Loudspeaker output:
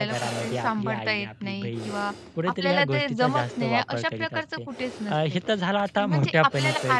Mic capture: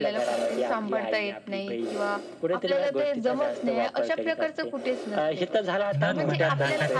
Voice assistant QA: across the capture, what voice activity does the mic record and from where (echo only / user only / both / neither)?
both